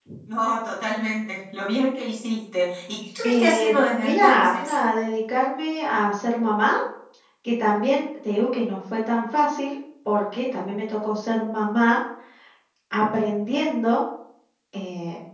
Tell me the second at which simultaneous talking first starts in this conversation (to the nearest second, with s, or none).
3 s